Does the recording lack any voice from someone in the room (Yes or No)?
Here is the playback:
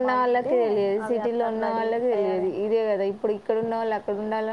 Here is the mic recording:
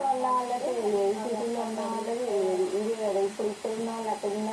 Yes